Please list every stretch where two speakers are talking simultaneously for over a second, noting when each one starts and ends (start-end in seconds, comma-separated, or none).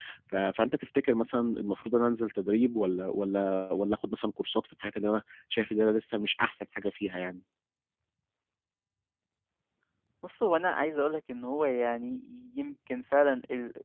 none